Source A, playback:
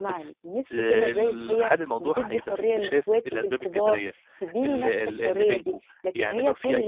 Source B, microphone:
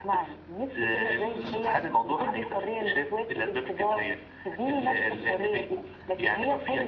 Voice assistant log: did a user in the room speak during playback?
No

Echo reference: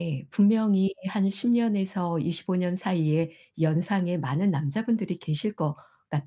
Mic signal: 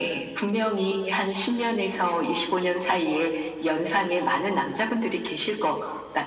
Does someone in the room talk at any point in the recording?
No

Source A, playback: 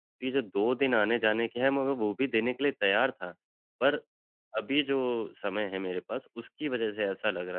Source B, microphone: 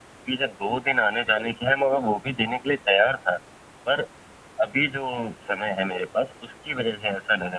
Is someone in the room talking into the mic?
No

